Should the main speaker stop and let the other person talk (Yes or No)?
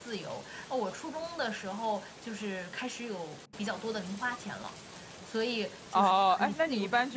Yes